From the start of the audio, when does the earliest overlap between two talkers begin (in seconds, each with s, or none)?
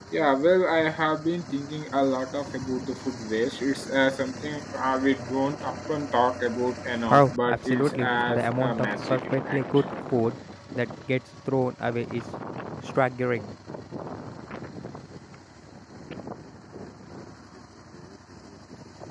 7.1 s